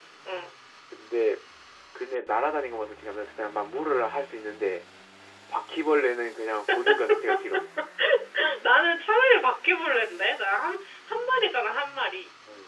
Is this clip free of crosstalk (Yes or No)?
Yes